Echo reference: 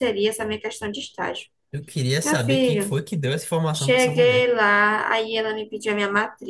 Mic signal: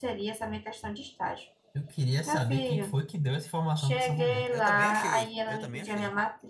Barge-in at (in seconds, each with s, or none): 4.5 s